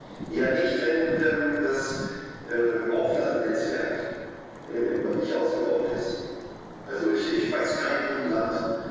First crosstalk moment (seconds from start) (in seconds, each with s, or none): none